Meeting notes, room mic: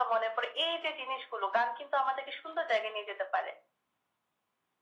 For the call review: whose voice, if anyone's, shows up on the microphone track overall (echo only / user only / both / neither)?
echo only